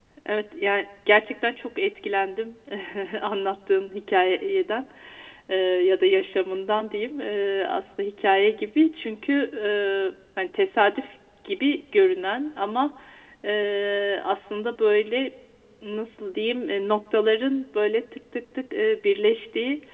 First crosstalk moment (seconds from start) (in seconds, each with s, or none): none